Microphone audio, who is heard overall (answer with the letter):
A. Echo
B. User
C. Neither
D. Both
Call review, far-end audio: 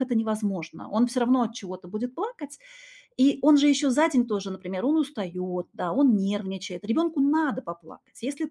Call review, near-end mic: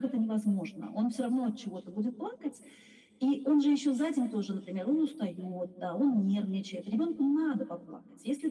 A